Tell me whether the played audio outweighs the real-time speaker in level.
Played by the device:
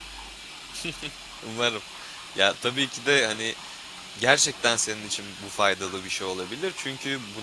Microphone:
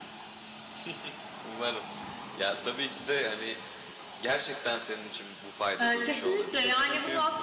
No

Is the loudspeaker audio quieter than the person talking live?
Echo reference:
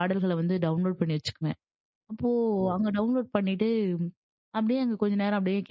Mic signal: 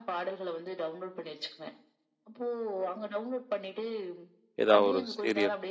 Yes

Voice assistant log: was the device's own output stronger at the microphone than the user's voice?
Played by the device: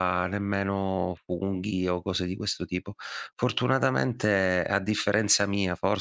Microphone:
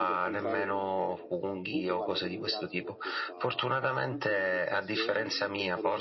Yes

